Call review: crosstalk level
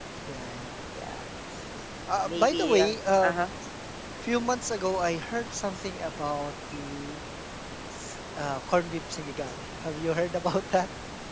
present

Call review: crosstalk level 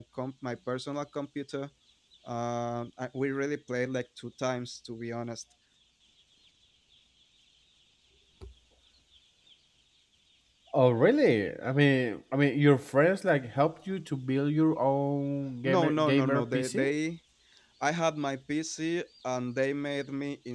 present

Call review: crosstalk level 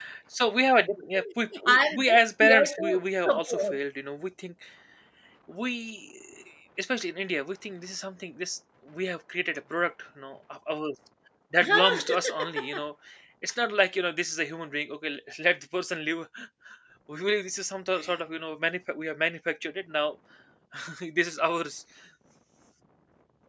present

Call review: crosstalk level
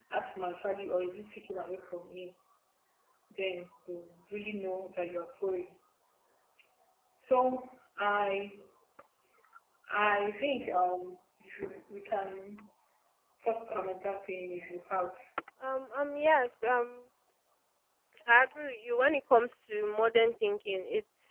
none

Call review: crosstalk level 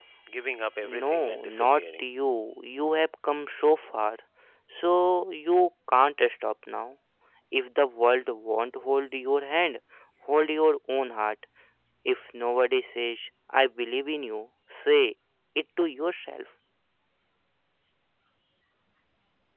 present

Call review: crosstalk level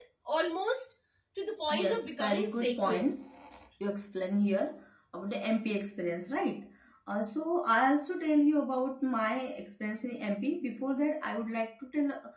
present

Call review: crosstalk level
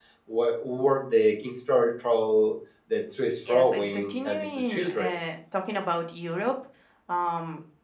present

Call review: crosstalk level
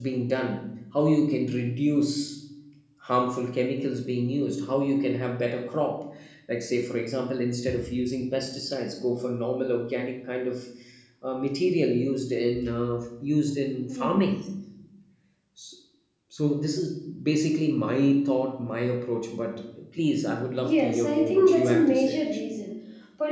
present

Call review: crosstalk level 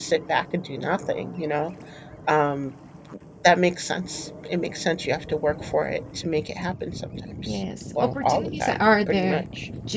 present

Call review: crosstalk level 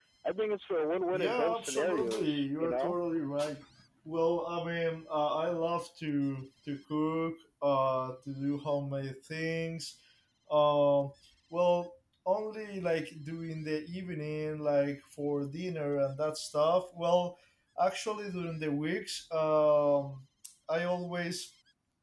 present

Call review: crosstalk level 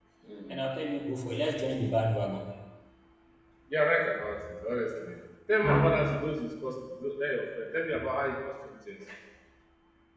none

